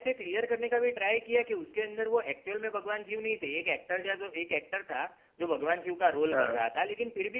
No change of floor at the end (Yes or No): Yes